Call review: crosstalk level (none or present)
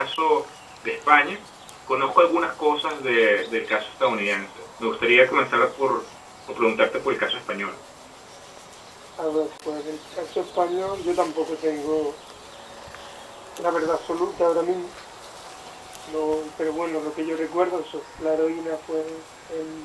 none